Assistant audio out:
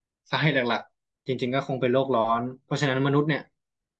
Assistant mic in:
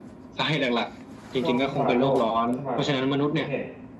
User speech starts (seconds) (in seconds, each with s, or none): 1.4 s